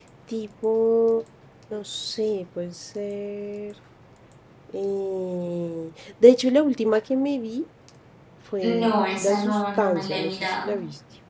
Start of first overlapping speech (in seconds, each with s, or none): 8.6 s